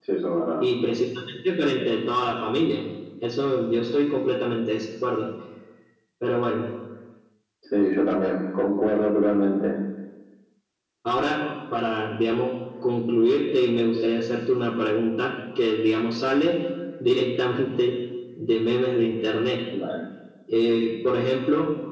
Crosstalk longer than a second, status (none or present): none